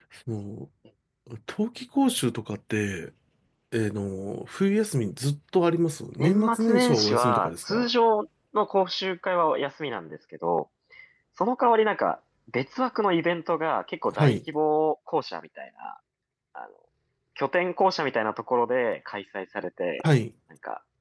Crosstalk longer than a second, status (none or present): present